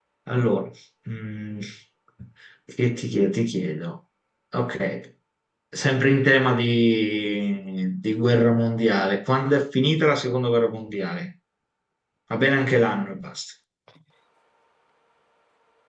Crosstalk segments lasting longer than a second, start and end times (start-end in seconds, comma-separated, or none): none